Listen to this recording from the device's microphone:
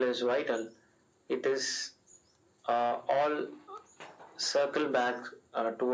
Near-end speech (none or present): none